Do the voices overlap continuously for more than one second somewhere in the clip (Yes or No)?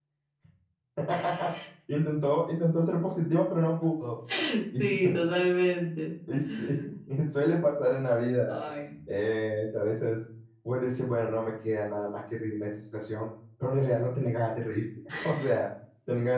No